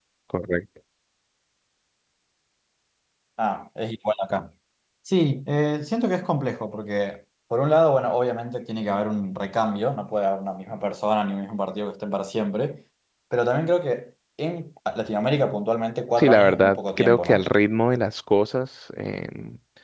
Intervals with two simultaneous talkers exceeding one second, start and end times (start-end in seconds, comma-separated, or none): 16.2-17.4